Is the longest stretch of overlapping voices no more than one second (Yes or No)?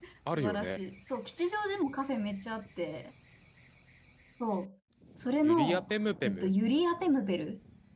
Yes